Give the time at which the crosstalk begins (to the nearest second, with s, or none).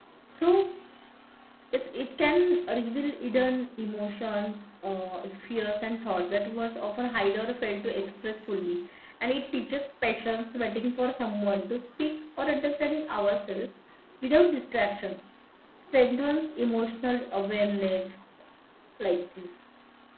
none